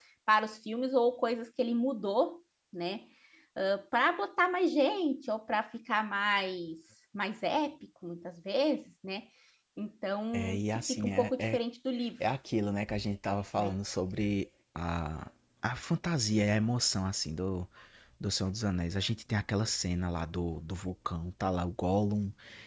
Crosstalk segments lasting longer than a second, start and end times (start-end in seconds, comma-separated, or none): 10.3-11.6